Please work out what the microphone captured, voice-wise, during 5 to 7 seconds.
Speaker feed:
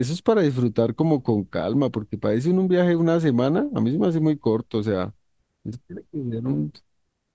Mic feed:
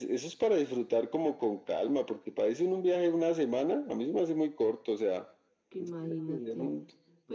both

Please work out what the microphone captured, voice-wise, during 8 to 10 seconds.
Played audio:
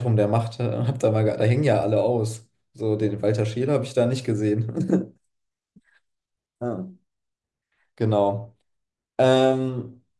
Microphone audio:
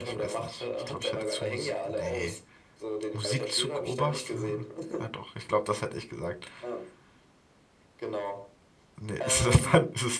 both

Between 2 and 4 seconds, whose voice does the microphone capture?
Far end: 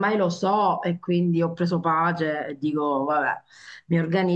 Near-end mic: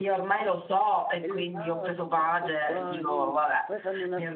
both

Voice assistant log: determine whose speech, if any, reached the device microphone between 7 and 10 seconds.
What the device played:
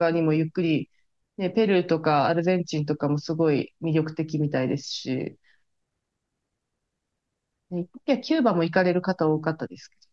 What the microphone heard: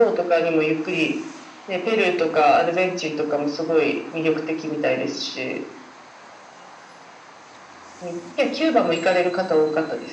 echo only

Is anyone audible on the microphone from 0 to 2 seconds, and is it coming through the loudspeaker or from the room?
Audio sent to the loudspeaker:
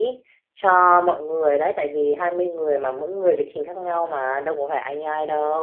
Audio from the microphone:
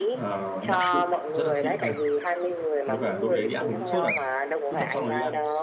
both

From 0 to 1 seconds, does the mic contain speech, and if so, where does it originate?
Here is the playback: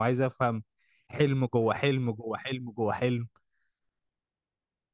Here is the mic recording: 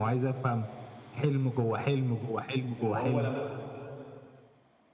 echo only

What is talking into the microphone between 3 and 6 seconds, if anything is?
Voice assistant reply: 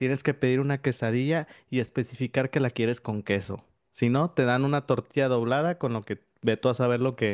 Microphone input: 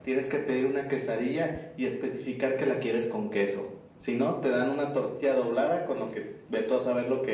echo only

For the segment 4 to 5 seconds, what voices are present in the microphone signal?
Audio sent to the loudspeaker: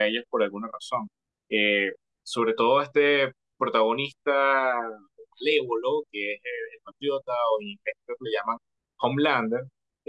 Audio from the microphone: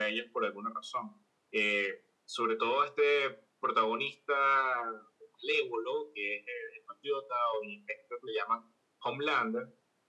echo only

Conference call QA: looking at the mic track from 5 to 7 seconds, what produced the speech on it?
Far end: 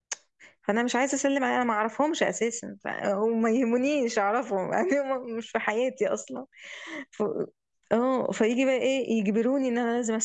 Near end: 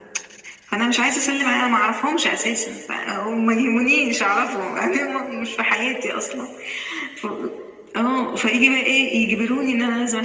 echo only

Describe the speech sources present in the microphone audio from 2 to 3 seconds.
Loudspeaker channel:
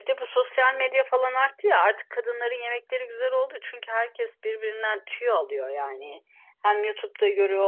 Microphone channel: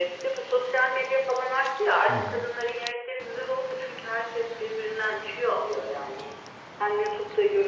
both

